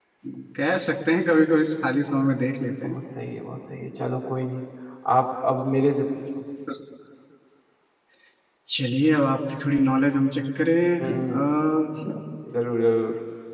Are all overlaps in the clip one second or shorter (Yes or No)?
Yes